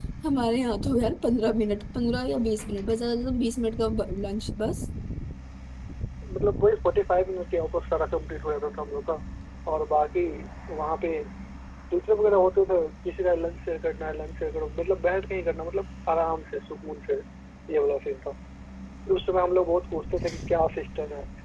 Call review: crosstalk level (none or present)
none